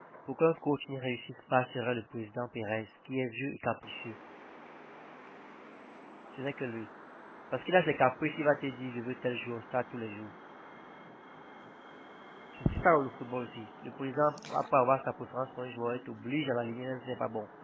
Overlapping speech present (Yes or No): No